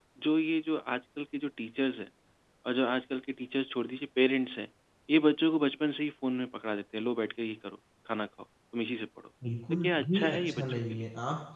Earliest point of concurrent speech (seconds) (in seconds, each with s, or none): 9.8 s